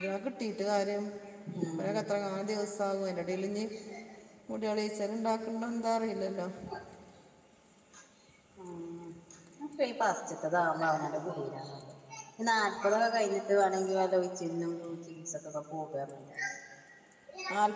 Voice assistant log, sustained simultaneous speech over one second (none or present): none